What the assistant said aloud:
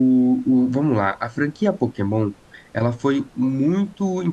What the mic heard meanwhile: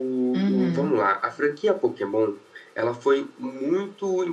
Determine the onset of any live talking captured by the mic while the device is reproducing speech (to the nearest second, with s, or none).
0 s